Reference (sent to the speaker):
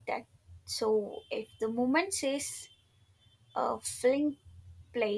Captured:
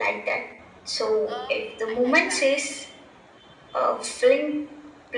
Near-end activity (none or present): present